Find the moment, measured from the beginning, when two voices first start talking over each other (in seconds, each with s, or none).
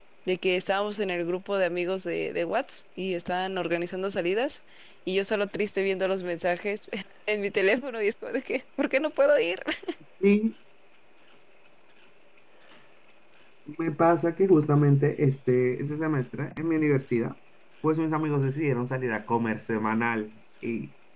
none